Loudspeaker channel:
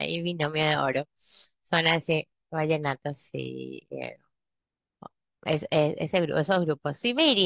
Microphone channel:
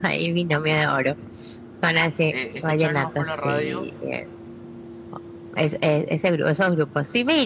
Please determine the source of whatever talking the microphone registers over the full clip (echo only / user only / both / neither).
both